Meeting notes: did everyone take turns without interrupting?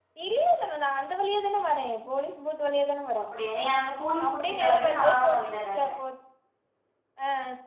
No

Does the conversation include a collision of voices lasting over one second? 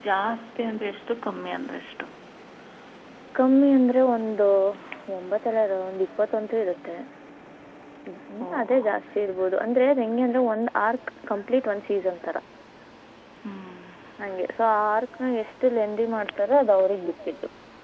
No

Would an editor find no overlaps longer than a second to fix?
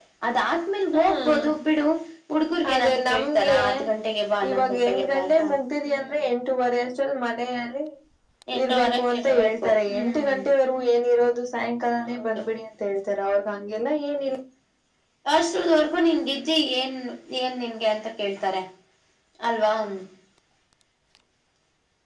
No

